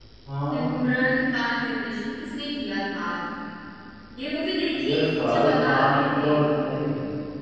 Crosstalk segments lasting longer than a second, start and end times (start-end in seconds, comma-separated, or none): 4.9-6.3